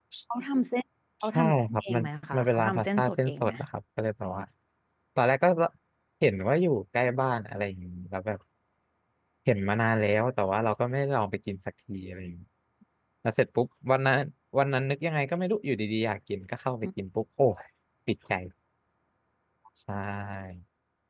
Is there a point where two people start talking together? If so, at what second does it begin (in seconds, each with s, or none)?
1.3 s